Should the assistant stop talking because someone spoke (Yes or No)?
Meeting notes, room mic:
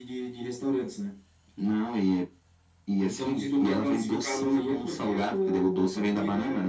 No